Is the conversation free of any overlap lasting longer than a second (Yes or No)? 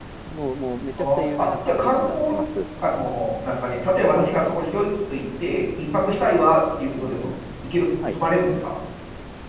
No